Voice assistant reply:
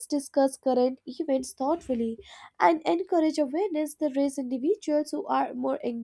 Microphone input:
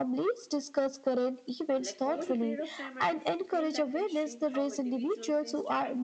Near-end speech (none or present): present